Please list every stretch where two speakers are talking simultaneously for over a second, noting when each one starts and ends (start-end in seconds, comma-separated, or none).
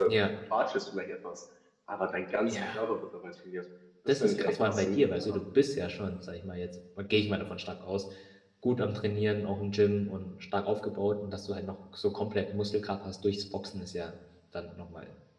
4.2-5.4